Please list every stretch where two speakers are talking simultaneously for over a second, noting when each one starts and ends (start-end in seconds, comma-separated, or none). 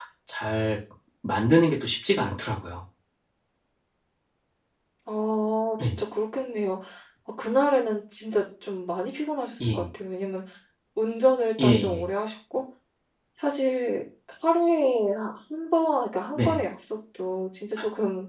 none